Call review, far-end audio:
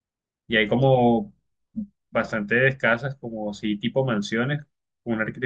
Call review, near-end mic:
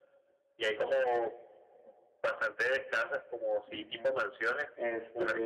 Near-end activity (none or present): present